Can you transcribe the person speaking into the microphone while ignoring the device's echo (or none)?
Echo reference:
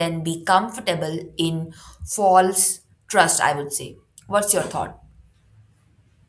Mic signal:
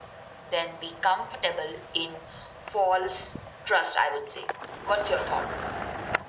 none